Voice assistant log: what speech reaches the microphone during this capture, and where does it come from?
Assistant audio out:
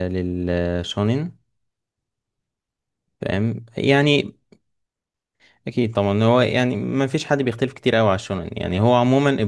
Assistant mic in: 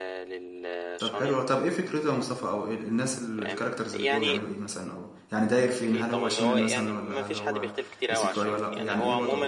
both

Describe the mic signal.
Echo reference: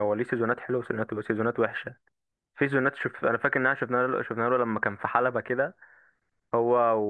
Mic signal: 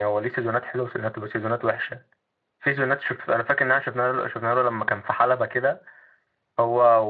echo only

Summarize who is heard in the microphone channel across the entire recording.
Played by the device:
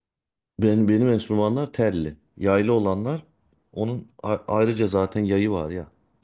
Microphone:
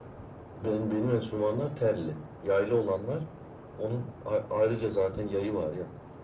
echo only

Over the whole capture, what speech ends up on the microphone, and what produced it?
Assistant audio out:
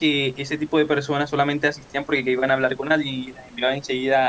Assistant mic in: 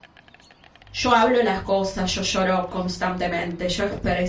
user only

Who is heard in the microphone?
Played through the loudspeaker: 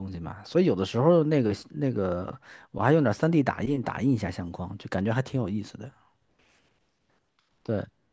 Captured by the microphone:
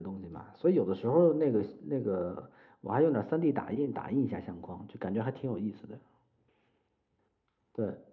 echo only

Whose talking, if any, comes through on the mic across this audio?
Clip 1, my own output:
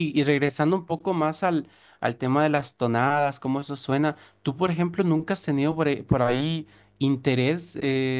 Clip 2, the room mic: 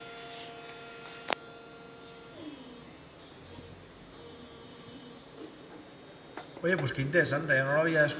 user only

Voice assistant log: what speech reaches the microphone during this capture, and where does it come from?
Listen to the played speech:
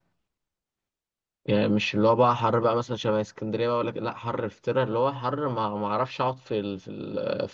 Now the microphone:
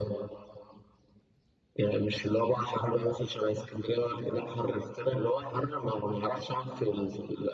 echo only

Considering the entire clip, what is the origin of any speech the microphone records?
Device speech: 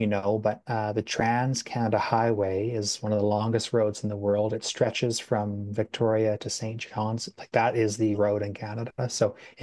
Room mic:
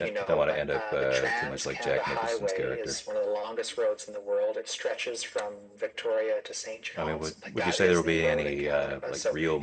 both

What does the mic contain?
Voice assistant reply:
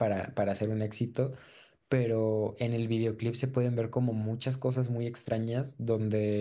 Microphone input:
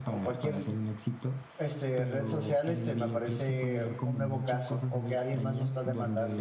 both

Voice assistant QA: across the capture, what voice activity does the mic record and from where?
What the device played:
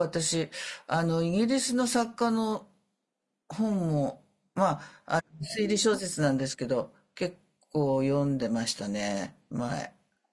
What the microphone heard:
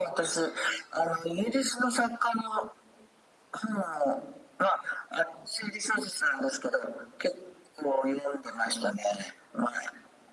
echo only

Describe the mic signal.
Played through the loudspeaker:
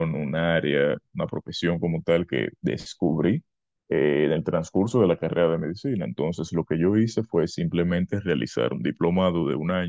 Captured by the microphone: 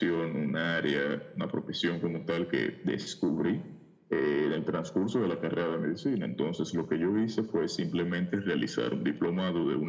echo only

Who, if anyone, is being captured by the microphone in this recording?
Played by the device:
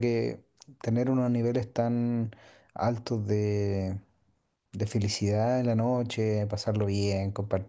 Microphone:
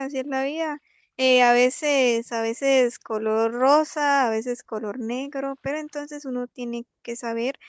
user only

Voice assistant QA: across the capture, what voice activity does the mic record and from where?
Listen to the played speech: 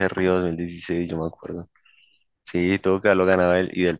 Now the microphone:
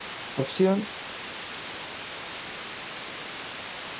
user only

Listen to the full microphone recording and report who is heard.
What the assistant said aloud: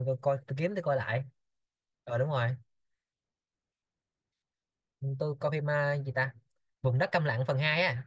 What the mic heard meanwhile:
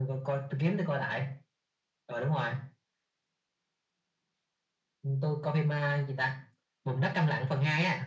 echo only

